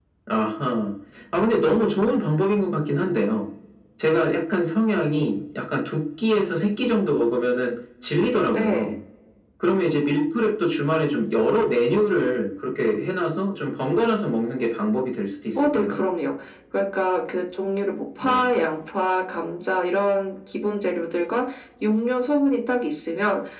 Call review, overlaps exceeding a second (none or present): none